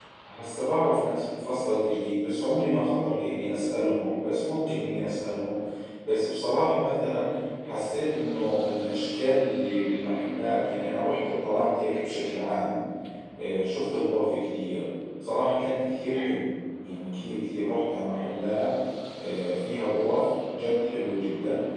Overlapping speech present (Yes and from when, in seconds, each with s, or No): No